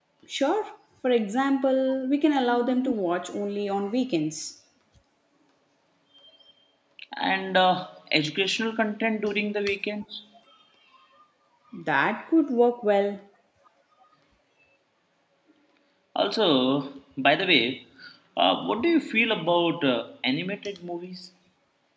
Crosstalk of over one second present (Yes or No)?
No